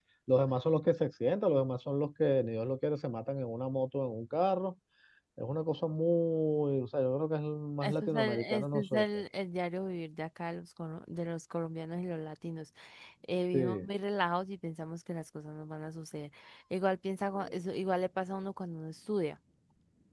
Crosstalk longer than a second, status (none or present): present